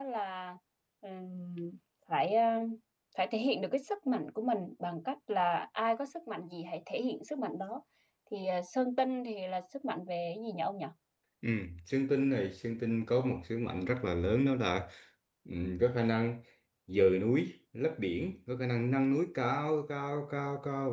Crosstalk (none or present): none